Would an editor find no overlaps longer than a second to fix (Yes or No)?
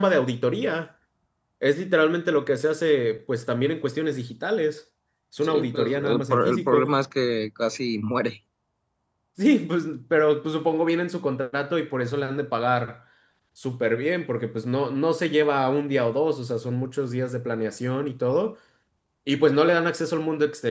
No